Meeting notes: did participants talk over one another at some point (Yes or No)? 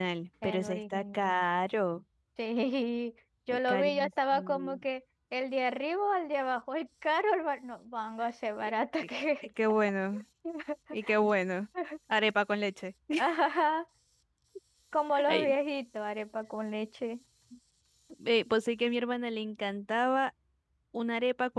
Yes